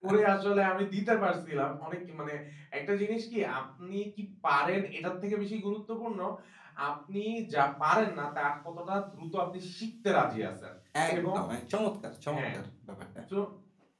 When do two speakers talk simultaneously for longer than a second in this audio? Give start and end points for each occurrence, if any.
none

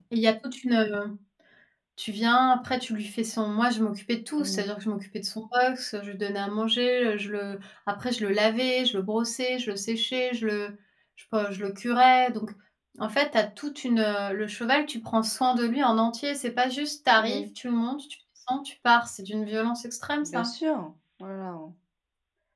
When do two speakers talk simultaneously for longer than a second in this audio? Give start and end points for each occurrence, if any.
none

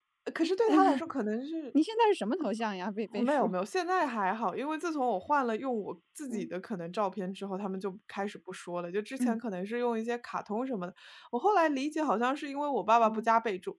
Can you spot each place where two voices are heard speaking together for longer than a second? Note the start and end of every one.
none

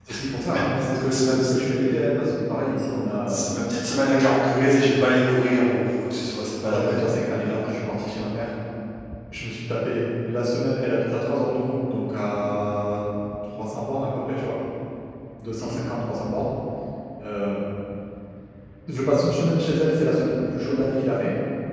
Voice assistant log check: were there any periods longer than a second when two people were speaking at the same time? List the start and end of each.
none

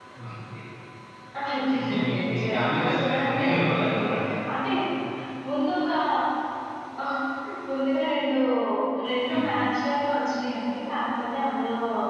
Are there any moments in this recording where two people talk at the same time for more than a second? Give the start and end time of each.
1.8-4.1

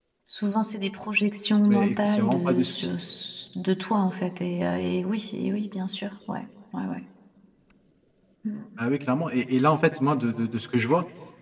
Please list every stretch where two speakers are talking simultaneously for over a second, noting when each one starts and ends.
1.7-3.0

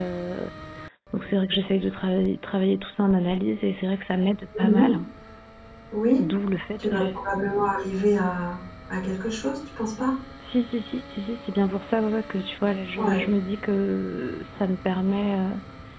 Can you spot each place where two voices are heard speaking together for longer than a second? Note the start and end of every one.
none

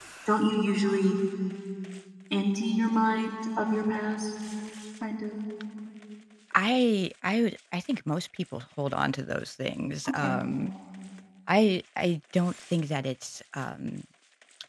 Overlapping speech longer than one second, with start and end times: none

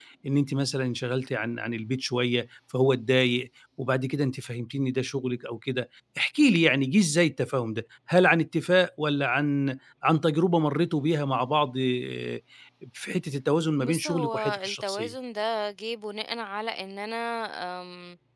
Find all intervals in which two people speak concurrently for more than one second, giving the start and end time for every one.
13.9-15.1

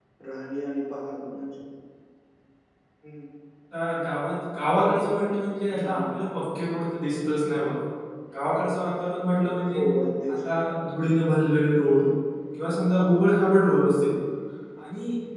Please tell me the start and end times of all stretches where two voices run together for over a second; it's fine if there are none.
none

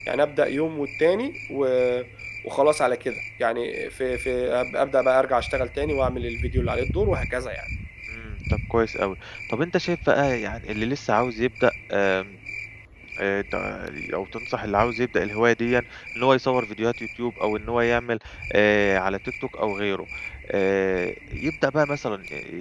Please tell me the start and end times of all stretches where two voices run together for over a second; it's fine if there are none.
none

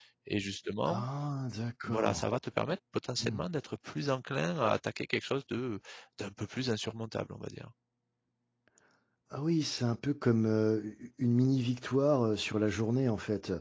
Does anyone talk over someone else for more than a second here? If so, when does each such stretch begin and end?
none

